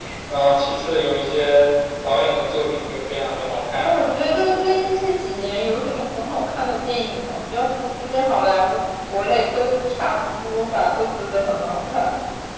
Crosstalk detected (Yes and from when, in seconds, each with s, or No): Yes, from 3.8 s